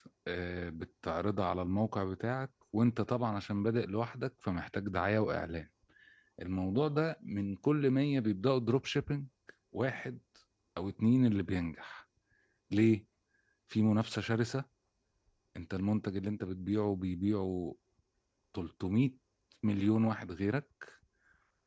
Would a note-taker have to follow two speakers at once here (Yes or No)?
No